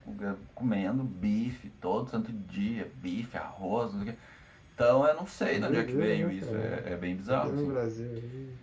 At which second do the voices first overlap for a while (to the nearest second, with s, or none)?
6 s